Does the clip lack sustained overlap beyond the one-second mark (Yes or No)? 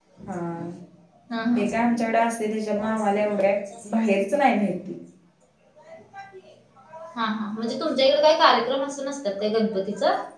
Yes